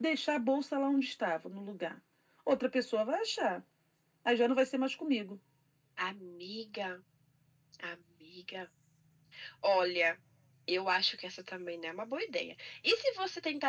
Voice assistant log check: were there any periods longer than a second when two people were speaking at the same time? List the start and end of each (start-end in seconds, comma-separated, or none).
none